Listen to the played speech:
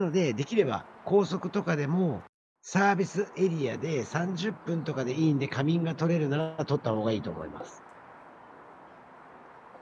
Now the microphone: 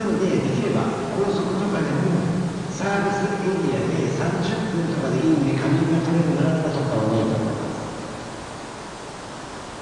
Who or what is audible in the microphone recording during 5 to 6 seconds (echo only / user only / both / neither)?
echo only